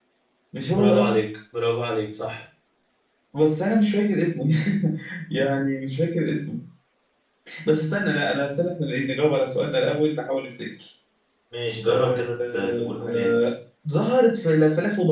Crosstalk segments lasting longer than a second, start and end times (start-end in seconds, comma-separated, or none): 11.9-13.4